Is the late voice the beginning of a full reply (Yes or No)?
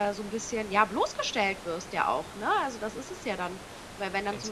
No